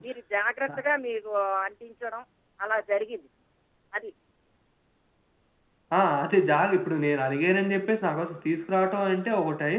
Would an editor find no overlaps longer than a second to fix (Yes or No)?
Yes